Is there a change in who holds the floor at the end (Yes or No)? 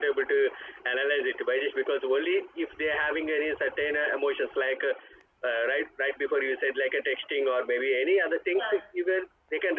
No